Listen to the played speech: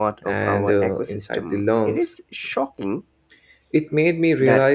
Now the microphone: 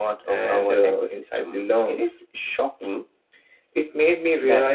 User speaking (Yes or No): No